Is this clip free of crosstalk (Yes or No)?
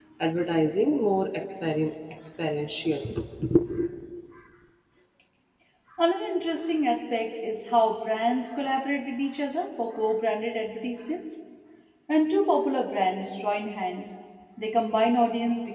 Yes